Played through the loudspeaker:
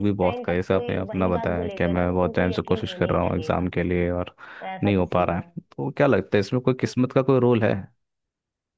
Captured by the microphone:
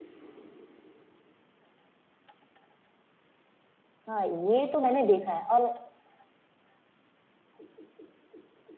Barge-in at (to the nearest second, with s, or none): 4 s